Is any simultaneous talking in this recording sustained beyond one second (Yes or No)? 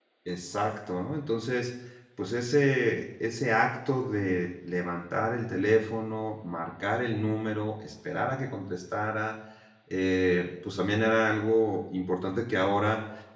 No